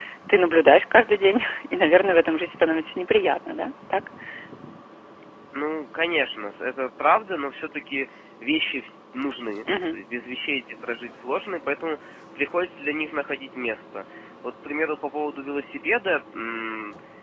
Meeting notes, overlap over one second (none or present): none